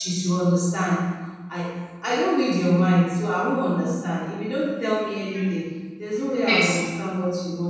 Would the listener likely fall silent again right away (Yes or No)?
Yes